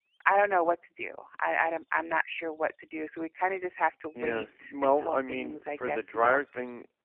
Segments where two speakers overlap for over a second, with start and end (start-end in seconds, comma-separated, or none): 4.2-6.4